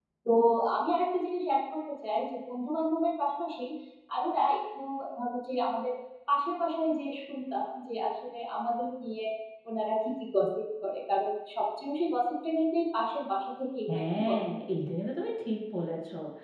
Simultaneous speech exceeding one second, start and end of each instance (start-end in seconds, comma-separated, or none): none